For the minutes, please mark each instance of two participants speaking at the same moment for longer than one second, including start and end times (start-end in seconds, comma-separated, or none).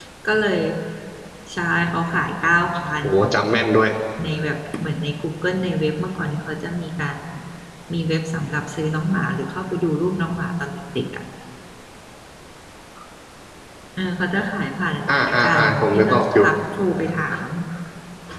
15.1-16.4